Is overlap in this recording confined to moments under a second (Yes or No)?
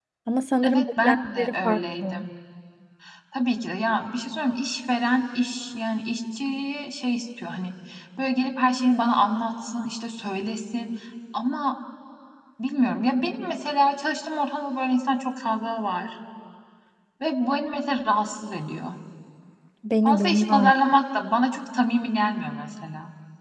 No